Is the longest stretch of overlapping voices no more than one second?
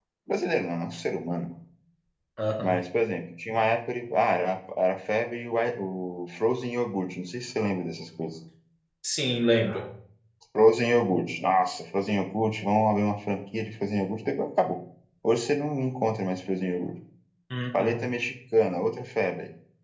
Yes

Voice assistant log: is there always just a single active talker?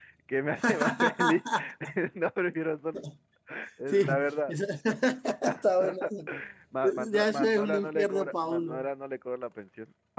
No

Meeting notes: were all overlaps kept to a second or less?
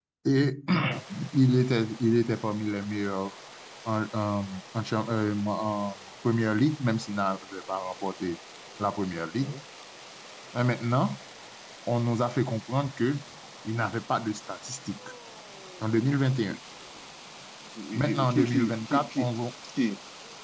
No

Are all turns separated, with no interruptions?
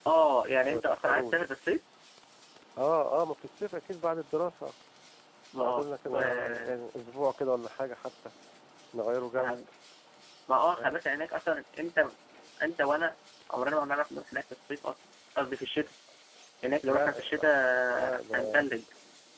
No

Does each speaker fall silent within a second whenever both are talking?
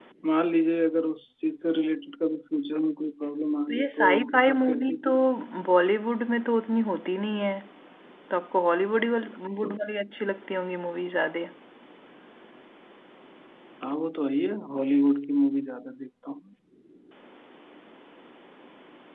No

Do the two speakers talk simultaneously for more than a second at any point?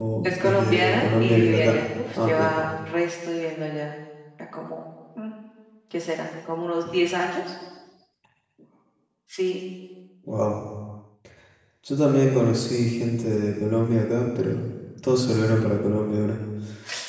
Yes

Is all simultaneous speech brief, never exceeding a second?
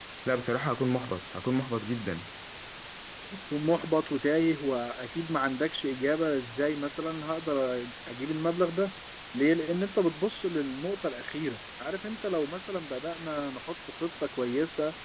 Yes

